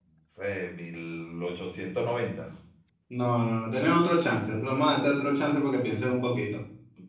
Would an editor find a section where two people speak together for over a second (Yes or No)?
No